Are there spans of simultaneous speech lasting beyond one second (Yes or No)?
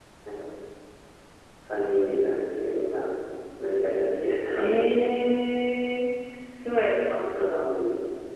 No